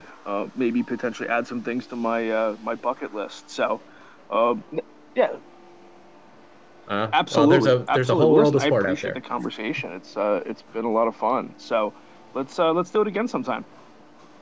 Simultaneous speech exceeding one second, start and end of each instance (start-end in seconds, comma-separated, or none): 7.1-9.2